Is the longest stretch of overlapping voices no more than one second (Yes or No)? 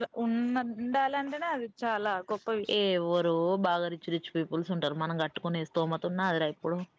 Yes